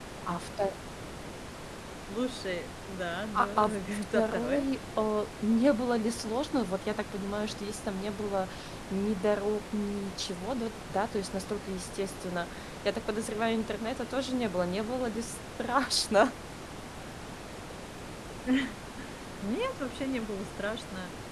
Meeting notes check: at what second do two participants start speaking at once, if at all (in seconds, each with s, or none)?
3.3 s